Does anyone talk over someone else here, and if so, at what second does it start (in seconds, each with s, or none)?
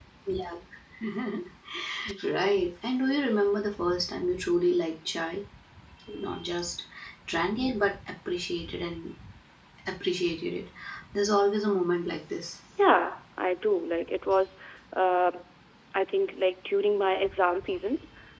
none